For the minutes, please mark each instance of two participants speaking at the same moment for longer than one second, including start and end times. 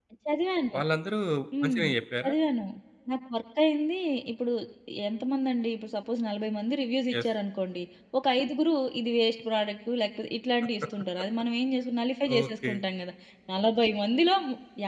none

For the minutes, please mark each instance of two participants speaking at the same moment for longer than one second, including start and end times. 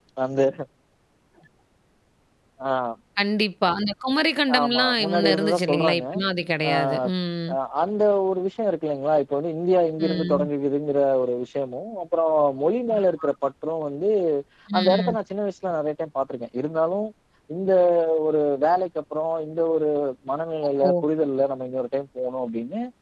4.6-6.0

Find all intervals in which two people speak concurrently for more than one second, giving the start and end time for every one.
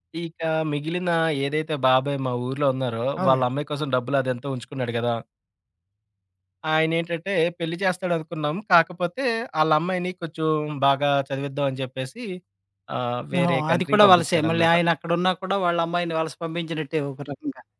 13.4-14.7

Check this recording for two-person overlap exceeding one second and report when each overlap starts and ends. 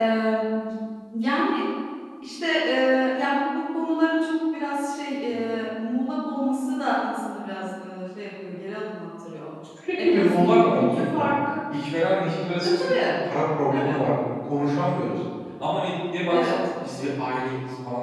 10.0-11.2

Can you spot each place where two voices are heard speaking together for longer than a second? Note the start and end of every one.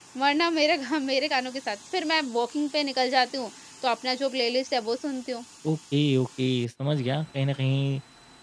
none

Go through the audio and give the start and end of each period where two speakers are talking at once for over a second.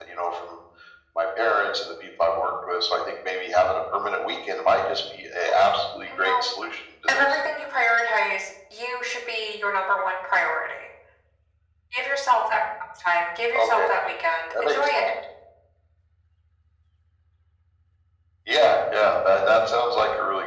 none

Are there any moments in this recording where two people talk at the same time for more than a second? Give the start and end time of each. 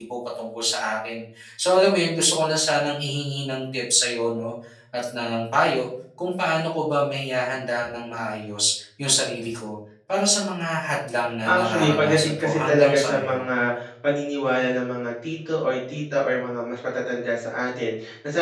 11.4-13.4

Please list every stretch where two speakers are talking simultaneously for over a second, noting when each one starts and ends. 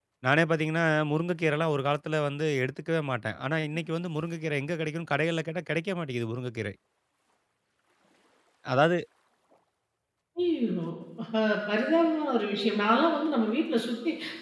none

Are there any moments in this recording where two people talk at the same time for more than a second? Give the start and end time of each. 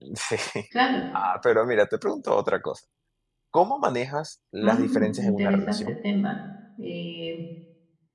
4.6-5.9

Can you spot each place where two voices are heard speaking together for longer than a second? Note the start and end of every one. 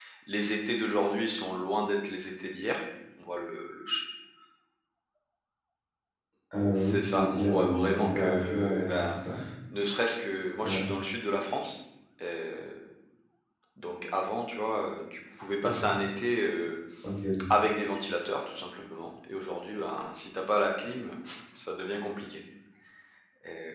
6.8-9.2

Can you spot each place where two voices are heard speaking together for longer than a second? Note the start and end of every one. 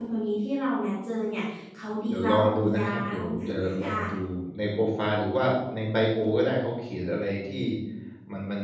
2.1-4.0

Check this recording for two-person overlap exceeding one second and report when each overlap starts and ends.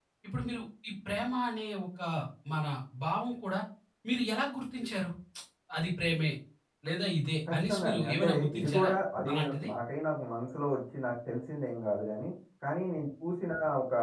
7.5-8.9

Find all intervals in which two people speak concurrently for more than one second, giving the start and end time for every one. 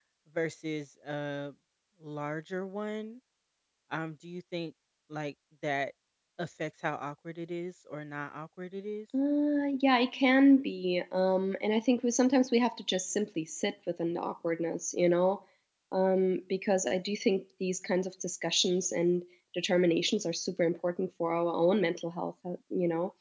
none

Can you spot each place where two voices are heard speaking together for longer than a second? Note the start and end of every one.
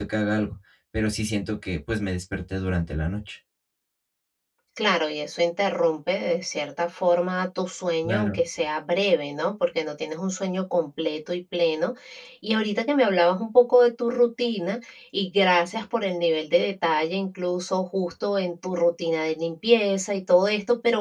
none

